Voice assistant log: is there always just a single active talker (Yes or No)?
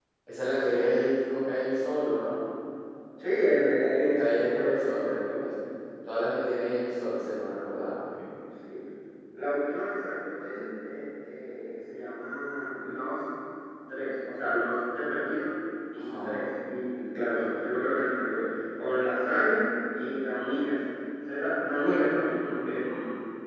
No